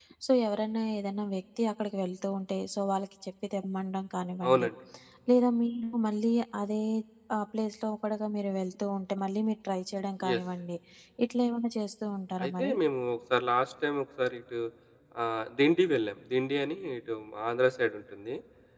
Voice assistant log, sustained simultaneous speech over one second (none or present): none